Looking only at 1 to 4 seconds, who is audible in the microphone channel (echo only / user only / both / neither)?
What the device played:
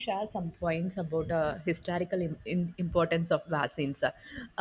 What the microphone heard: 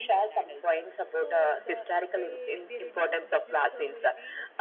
both